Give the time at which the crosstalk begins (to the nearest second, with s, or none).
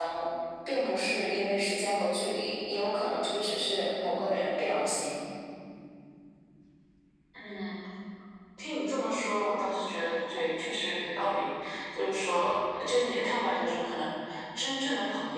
none